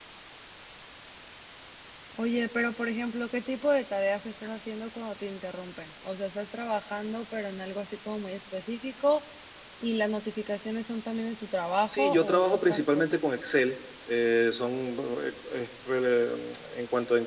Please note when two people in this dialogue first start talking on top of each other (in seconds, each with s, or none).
11.8 s